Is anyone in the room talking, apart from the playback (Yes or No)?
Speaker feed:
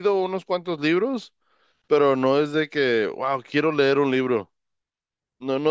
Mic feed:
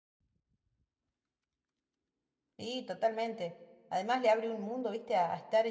Yes